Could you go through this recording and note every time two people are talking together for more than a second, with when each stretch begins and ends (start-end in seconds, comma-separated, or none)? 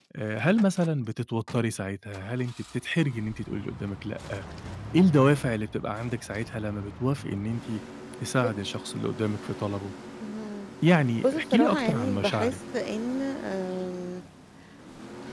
11.2-12.6